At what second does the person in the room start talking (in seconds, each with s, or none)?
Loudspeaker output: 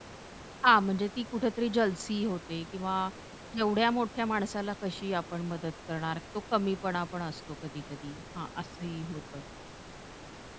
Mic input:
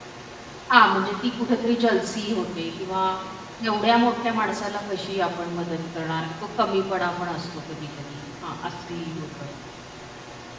none